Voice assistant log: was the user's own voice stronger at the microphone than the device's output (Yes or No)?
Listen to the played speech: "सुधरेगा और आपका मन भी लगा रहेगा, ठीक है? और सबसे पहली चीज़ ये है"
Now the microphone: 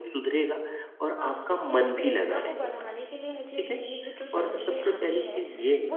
No